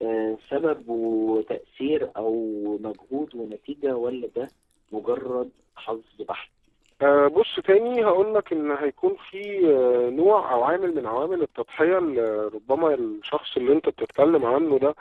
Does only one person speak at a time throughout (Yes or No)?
Yes